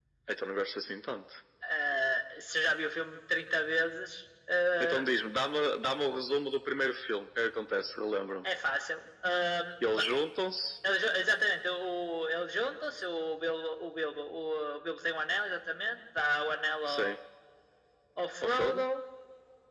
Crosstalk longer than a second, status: none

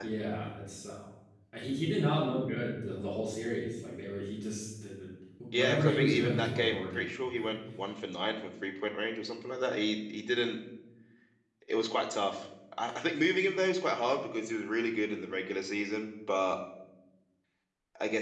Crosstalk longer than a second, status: present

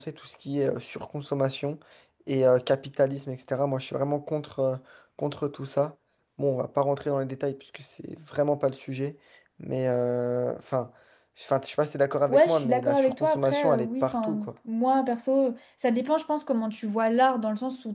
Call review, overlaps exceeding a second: present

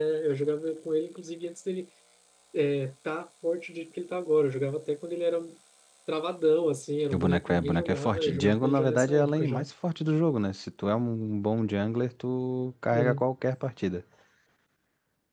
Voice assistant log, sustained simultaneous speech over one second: present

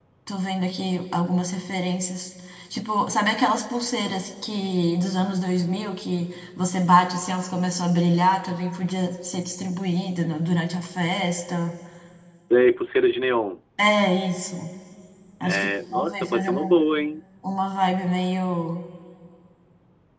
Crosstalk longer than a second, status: present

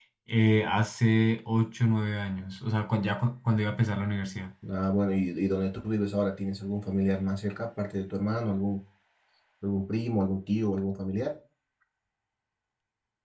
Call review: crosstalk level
none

